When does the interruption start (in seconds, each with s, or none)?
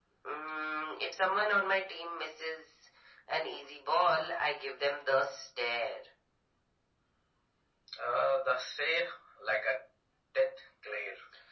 none